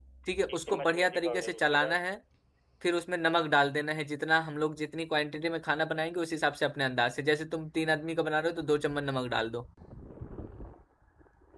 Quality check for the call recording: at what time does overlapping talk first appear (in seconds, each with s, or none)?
0.6 s